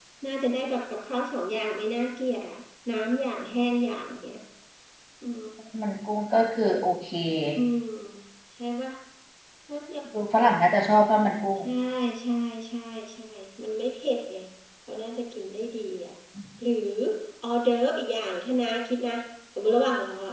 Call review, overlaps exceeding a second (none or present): none